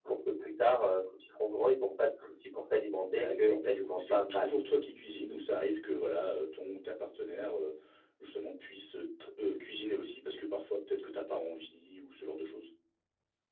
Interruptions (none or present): present